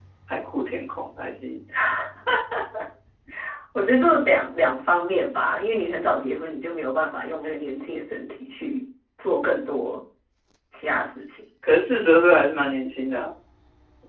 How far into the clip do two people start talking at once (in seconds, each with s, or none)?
none